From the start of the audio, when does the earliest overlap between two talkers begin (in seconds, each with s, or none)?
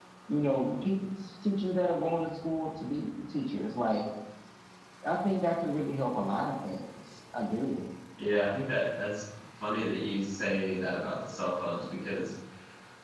none